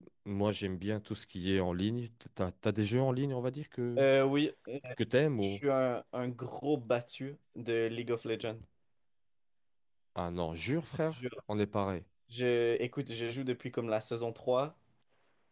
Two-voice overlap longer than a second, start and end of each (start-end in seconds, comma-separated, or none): none